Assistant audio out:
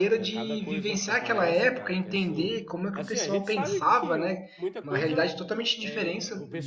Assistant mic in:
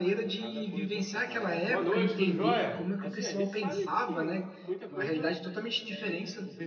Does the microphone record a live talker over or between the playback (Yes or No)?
Yes